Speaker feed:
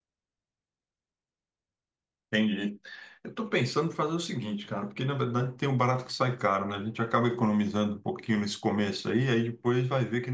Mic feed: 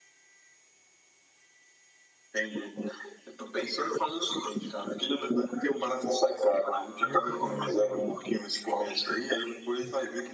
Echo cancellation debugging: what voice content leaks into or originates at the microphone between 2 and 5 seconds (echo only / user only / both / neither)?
echo only